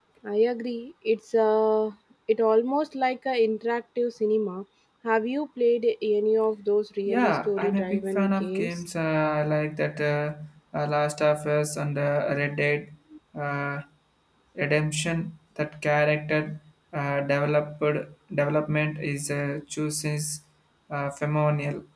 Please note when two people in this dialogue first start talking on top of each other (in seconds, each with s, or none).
7.1 s